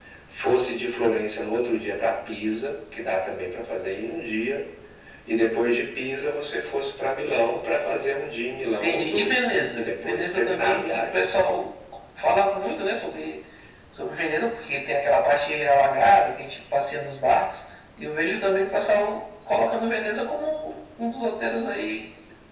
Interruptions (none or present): present